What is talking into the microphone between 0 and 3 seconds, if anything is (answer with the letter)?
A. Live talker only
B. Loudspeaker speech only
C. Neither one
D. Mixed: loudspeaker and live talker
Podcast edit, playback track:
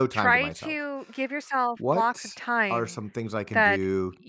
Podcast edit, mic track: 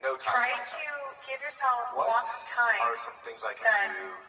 B